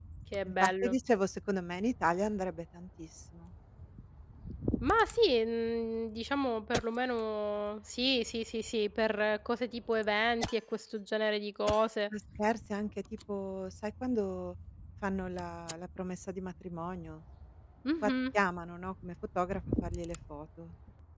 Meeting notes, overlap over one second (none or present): none